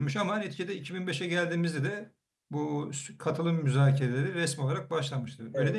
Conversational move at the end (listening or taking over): taking over